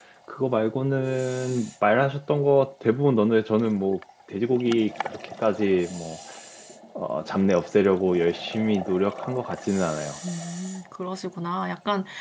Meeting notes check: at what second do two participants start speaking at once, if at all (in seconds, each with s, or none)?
none